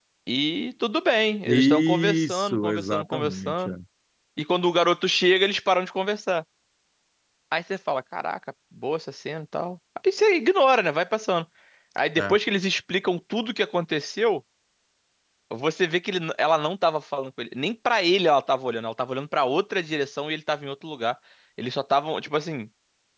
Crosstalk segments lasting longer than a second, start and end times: 1.4-3.7

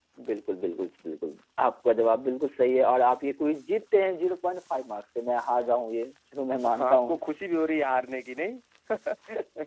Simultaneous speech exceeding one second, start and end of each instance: none

